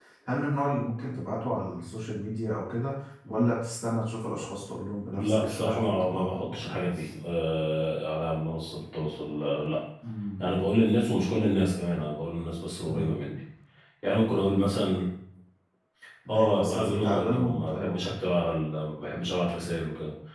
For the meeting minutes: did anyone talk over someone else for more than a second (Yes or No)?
Yes